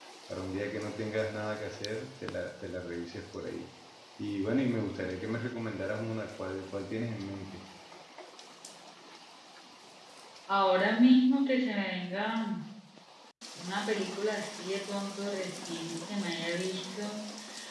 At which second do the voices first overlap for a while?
none

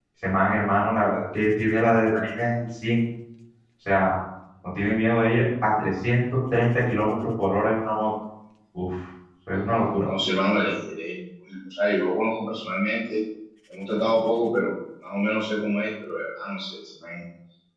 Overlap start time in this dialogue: none

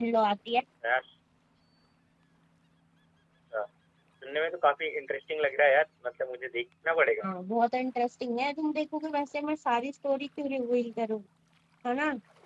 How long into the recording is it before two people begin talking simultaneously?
none

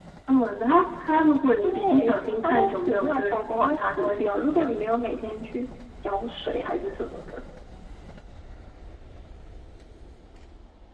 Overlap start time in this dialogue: 1.6 s

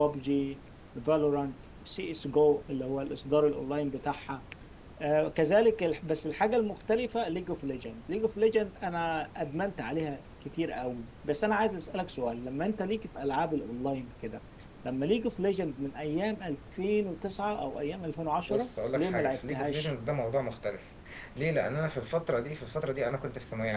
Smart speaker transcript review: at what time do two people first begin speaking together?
18.5 s

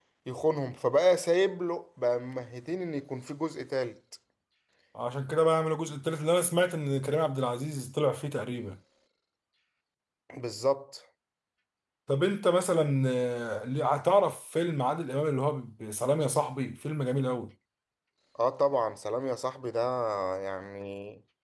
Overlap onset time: none

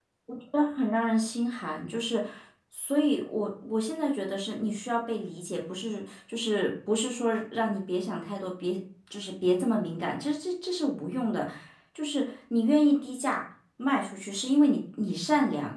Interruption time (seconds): none

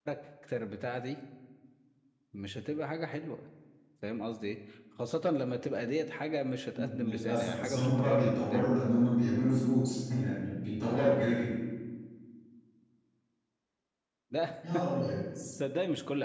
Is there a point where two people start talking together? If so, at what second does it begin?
6.7 s

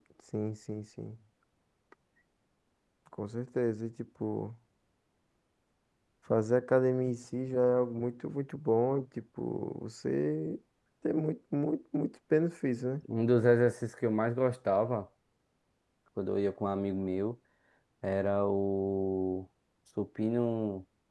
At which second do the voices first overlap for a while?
none

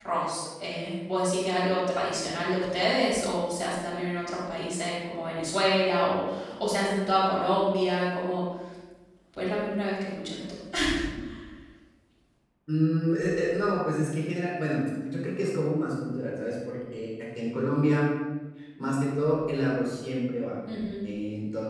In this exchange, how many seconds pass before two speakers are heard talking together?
none

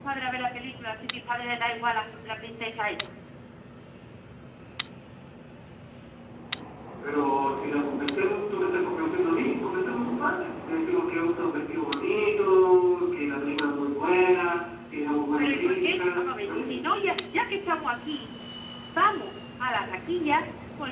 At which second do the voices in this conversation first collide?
15.4 s

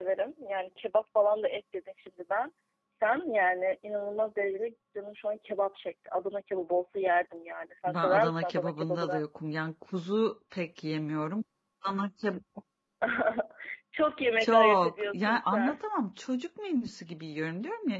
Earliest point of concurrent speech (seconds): 7.9 s

